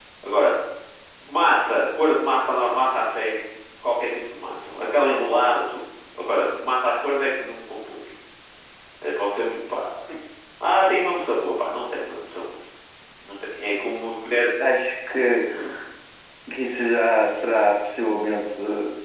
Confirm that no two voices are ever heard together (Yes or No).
Yes